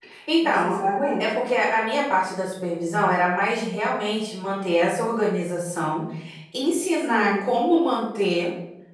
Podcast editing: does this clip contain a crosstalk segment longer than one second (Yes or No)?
No